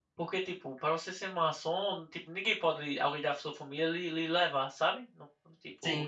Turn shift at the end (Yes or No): No